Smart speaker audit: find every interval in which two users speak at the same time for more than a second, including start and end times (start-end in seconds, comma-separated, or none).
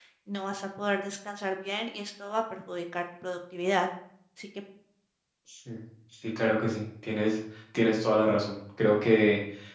none